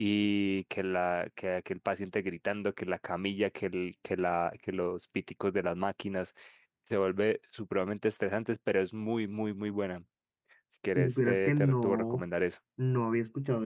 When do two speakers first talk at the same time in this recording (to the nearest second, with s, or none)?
11 s